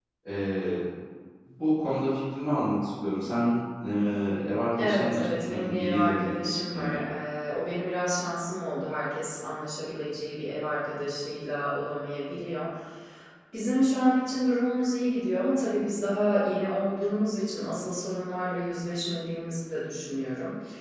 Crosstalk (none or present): present